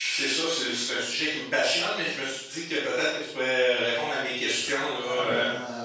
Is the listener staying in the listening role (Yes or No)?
No